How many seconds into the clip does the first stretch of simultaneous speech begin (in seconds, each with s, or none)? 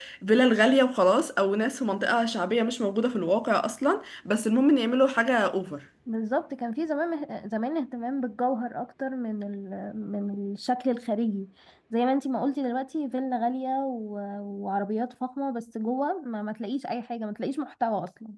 none